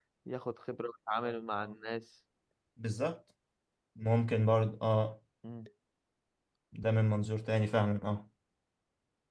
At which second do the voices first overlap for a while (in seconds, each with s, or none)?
none